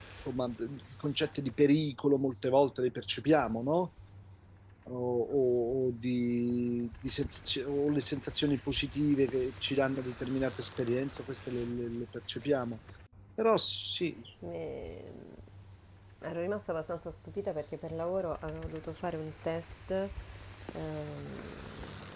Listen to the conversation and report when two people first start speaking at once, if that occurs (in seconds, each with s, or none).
none